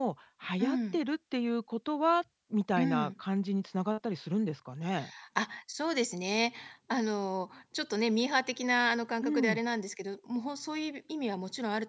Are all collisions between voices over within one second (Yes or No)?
Yes